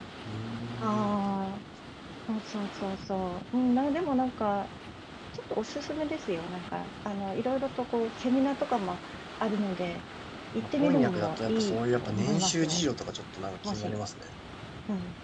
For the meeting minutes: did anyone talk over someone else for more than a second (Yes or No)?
Yes